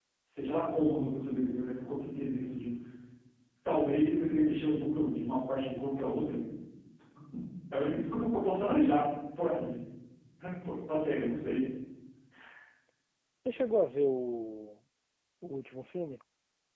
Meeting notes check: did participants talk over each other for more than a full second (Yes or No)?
No